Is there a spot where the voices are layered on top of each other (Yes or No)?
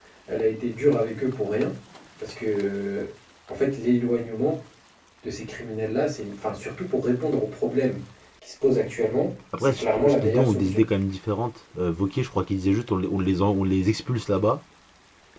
Yes